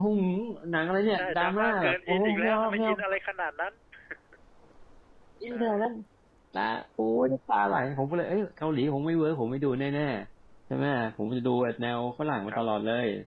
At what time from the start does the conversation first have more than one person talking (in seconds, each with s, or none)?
1.1 s